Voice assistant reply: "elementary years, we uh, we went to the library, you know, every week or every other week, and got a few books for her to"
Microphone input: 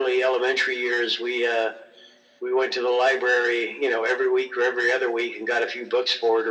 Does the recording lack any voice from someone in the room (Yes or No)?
Yes